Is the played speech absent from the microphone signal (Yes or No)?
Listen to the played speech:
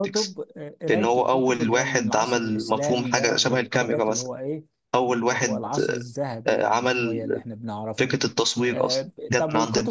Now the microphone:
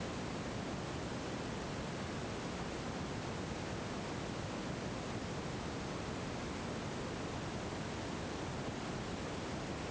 Yes